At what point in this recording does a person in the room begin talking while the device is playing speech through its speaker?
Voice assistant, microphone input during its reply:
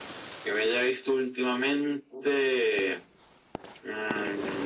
none

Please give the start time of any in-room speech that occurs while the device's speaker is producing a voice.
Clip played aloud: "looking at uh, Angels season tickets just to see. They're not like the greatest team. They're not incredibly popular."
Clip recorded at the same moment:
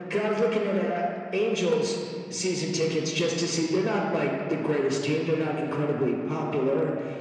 none

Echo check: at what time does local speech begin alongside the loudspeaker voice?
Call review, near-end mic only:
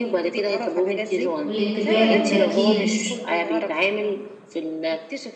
1.4 s

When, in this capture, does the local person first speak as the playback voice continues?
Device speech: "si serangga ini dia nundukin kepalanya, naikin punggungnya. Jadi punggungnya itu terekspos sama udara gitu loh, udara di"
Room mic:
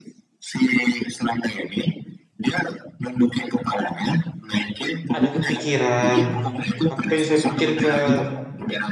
5.2 s

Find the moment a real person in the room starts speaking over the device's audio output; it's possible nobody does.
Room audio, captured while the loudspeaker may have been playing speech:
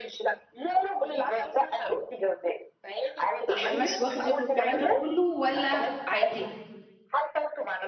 3.5 s

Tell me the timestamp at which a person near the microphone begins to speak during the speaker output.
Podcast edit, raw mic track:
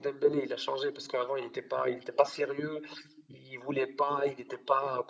none

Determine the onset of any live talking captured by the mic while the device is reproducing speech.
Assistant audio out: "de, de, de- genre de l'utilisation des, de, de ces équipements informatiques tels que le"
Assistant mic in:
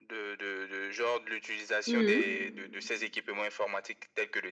1.9 s

